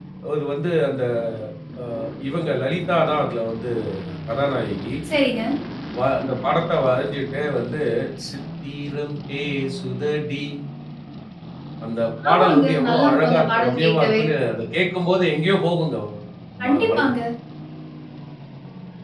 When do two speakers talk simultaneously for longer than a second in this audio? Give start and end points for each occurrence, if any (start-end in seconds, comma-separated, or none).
12.3-14.2